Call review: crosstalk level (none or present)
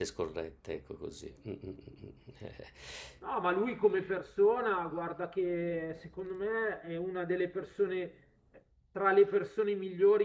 none